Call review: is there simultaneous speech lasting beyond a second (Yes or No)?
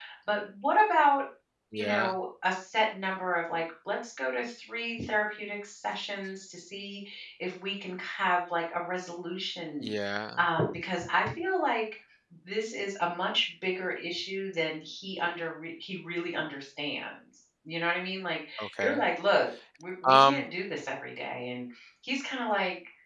No